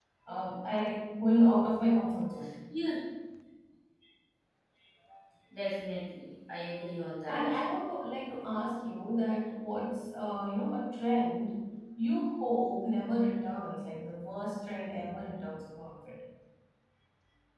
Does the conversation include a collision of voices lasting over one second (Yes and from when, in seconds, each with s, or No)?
No